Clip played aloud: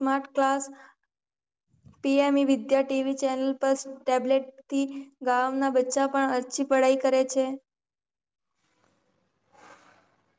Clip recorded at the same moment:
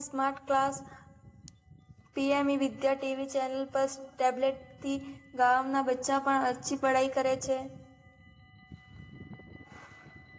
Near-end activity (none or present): none